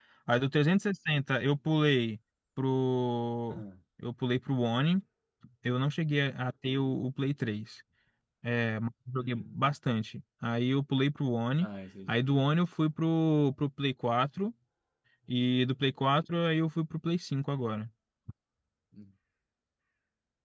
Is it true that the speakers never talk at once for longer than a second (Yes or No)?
Yes